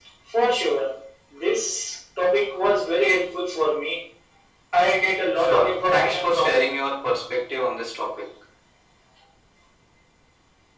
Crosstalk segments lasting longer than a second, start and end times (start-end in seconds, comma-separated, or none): 5.4-6.7